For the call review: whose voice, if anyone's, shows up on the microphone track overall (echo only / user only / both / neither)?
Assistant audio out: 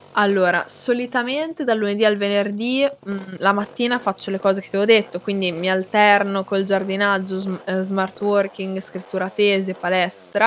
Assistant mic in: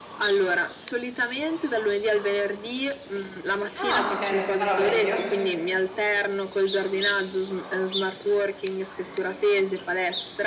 both